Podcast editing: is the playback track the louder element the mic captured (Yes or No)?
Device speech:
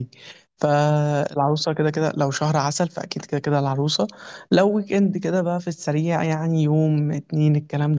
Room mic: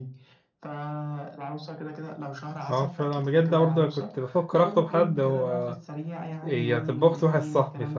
No